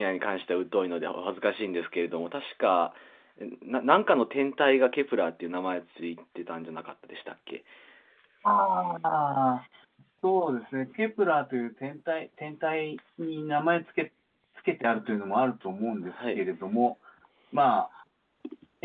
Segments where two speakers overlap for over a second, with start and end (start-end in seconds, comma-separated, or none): none